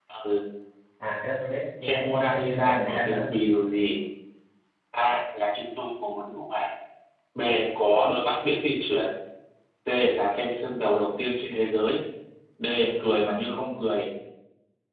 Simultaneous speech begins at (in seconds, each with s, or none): 1.8 s